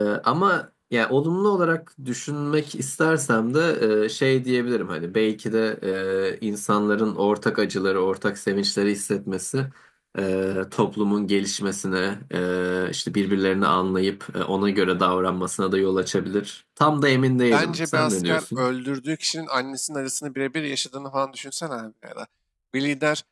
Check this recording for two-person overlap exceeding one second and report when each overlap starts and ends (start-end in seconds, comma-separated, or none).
17.4-18.7